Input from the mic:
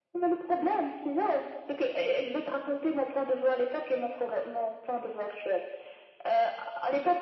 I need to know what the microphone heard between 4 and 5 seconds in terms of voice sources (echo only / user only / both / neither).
echo only